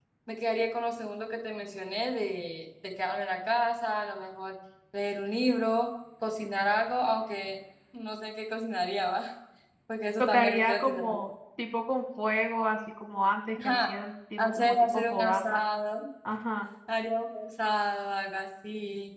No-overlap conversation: No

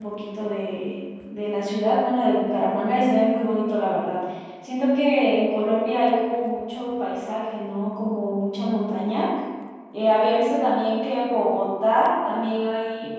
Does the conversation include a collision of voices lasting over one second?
No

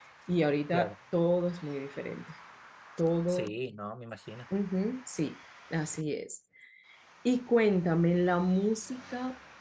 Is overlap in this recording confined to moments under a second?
Yes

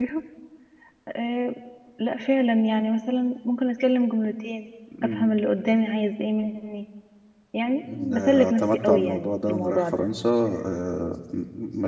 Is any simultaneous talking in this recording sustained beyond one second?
Yes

